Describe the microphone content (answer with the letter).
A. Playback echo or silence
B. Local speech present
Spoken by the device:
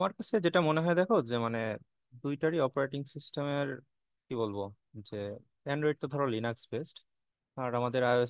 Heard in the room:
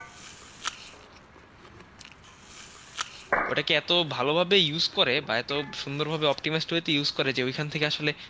B